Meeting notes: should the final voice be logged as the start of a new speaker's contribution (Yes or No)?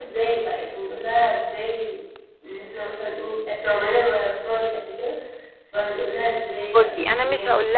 Yes